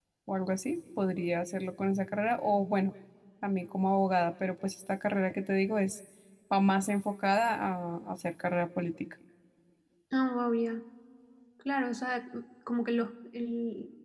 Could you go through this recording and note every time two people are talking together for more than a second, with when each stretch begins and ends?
none

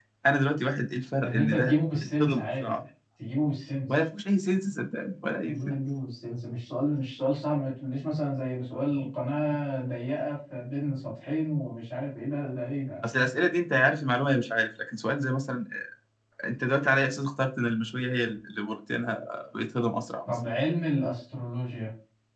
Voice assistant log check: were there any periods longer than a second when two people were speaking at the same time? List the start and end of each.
1.2-2.8

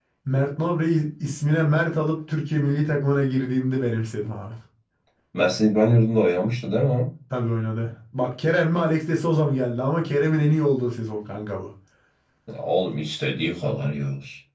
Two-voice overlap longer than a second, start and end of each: none

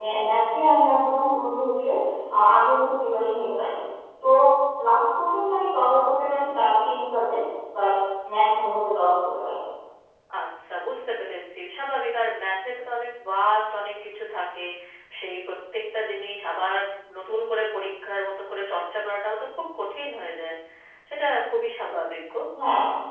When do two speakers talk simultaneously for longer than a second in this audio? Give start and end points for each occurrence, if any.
none

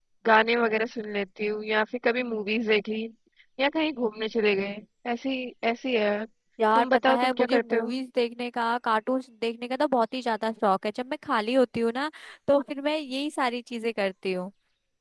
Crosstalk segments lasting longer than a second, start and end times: 6.8-8.0

